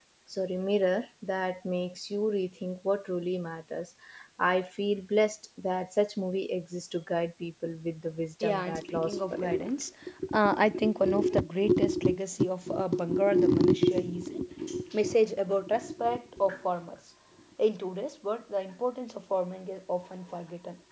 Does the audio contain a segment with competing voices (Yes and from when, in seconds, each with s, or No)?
Yes, from 8.4 s